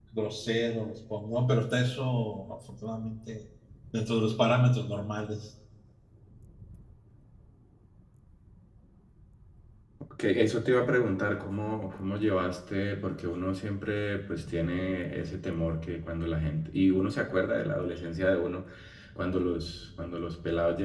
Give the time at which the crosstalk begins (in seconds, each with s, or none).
none